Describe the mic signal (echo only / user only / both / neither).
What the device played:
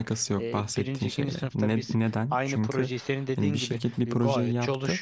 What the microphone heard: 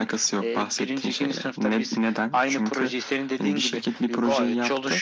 echo only